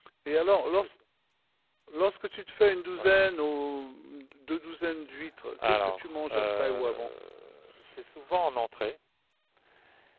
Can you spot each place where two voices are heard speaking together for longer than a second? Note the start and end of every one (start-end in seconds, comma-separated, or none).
5.6-7.1